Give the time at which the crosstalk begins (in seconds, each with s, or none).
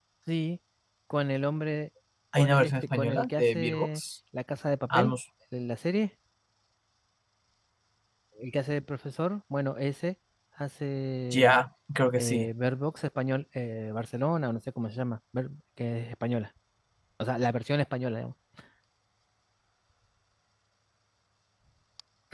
2.4 s